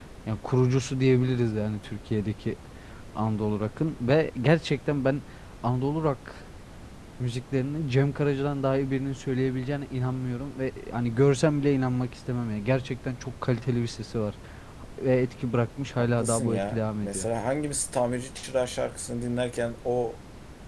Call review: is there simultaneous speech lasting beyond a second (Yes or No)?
Yes